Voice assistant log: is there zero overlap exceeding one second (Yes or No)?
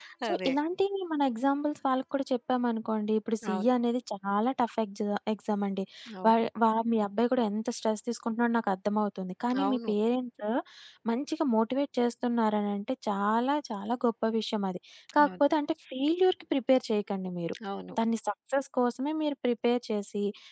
Yes